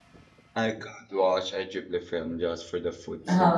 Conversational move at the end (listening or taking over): taking over